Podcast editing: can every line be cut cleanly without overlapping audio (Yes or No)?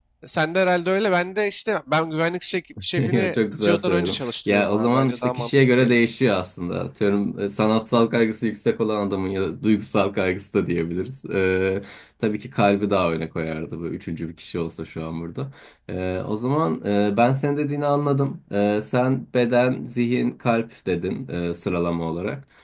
No